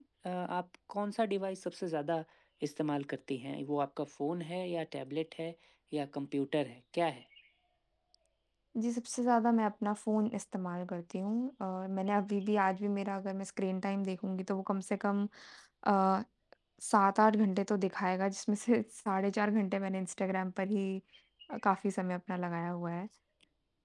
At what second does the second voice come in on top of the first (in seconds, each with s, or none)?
none